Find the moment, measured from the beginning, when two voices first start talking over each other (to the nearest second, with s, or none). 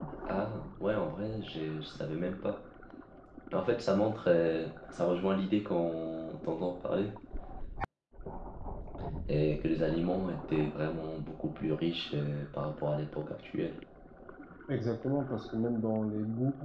none